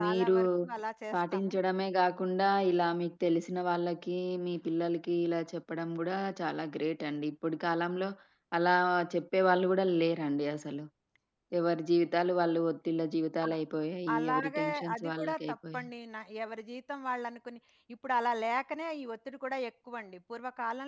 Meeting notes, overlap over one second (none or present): present